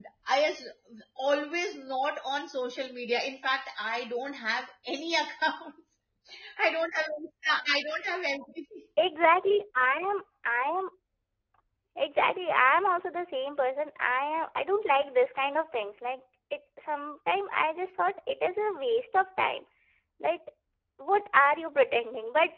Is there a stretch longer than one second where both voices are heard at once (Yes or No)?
No